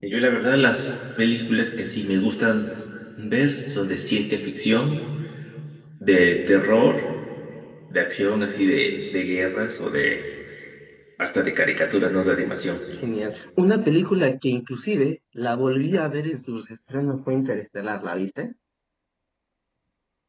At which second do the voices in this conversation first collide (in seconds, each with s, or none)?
none